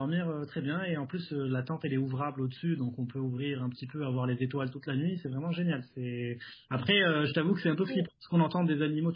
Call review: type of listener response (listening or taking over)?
listening